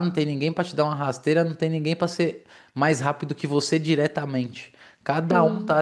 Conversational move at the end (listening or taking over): listening